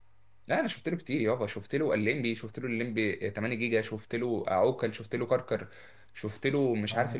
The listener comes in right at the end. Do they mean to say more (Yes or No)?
No